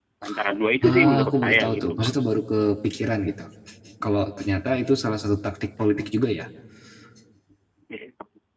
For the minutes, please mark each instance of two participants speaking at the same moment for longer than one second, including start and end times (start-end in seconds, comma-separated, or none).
0.8-2.1